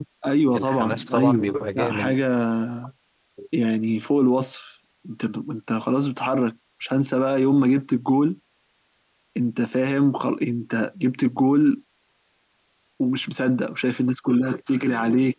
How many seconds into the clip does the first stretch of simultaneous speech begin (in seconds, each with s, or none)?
0.6 s